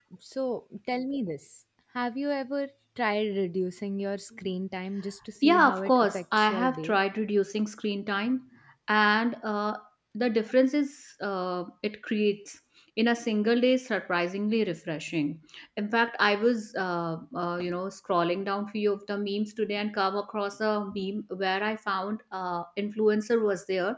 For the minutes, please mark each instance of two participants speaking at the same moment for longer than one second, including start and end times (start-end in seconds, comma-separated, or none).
5.4-7.0